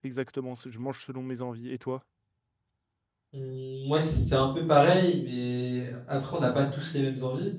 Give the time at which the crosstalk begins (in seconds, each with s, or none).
none